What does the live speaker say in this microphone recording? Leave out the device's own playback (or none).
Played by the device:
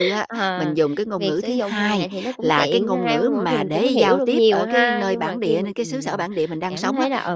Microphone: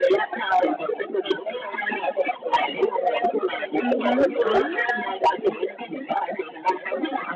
Ừm hứm, có.